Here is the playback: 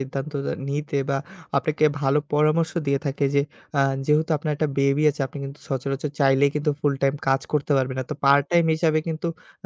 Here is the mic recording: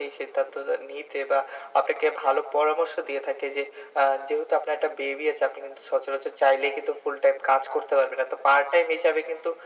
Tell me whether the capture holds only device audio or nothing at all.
Yes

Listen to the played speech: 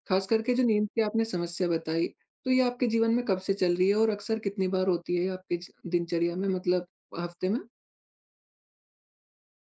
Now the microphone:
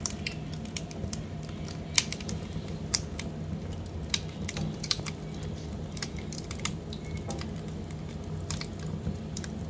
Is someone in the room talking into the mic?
No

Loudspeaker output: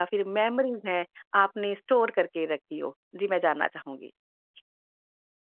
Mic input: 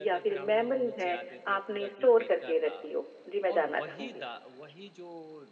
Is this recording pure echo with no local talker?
No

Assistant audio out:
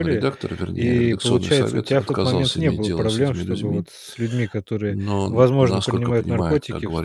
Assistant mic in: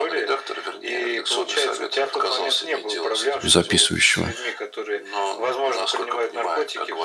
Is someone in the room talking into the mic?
Yes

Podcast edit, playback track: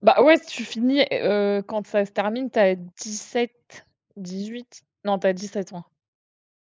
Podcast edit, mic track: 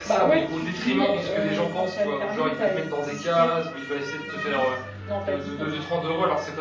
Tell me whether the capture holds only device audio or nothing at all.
No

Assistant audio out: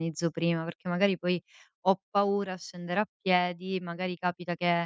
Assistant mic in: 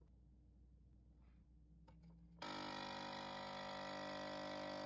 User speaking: No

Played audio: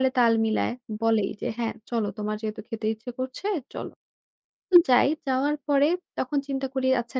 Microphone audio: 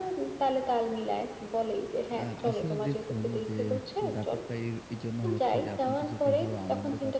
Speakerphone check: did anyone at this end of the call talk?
Yes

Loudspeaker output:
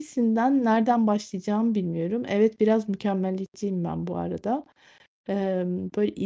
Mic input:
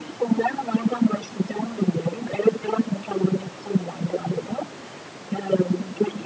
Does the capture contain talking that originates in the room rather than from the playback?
No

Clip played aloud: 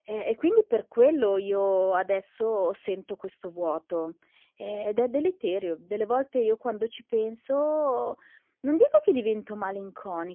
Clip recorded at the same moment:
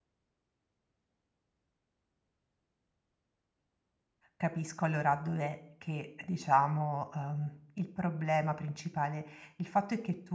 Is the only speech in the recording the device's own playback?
No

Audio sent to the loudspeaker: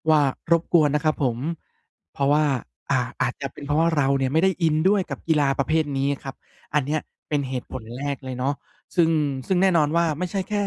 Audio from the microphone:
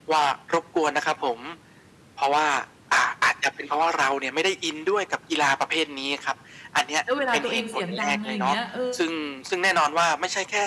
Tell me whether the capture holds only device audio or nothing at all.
No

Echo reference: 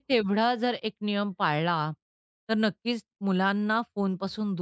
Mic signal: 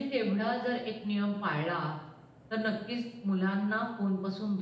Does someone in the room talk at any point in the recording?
No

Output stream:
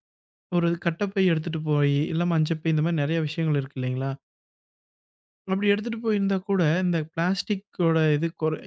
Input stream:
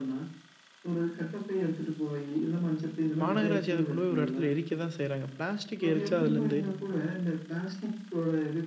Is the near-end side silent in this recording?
No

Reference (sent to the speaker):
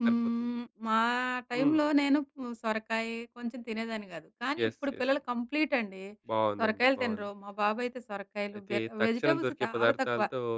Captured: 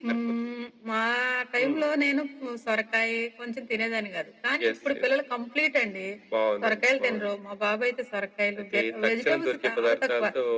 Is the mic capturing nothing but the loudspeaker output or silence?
Yes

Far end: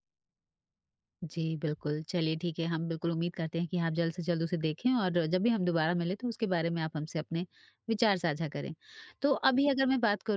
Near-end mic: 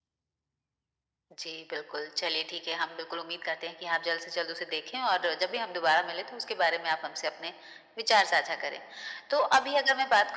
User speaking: No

